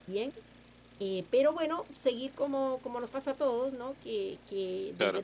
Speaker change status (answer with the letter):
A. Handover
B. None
B